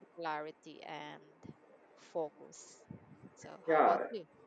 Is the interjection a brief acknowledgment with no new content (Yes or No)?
No